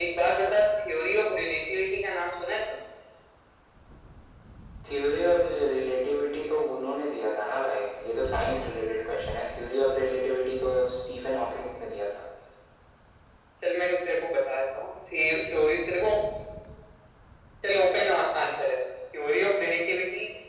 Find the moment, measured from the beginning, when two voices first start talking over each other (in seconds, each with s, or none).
none